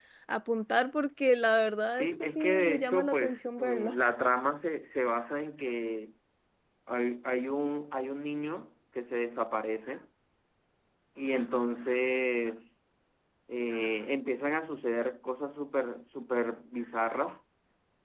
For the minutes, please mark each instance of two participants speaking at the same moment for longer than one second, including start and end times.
2.0-4.0

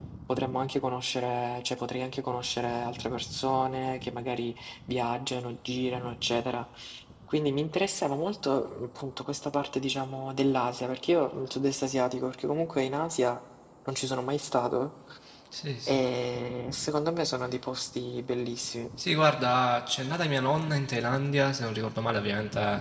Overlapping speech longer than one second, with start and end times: none

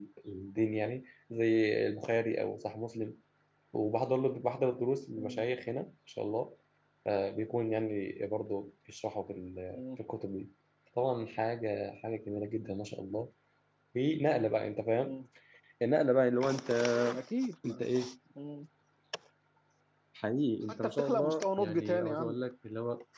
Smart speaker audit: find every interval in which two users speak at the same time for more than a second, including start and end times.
20.8-22.4

